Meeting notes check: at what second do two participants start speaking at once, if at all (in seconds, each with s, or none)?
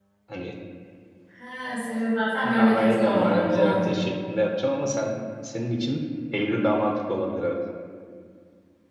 2.4 s